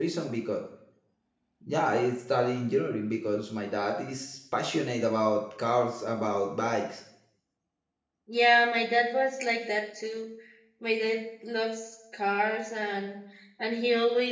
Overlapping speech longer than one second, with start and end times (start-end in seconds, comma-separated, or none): none